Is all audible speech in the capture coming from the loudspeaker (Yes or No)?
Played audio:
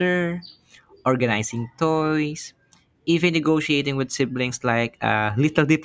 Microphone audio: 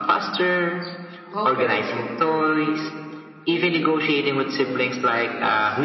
No